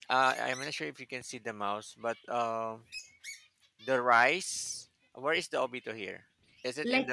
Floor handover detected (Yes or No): Yes